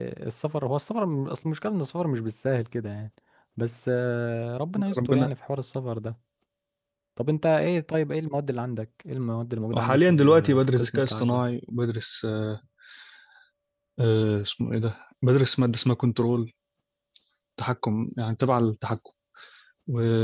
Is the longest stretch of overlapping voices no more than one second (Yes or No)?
No